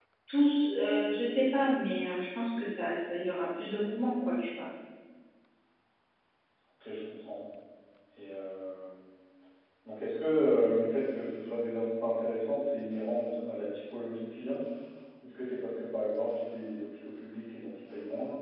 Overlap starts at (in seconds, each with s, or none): none